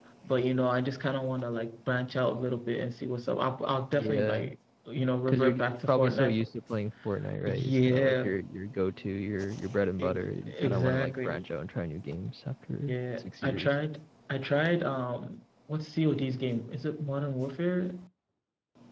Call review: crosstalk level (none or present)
present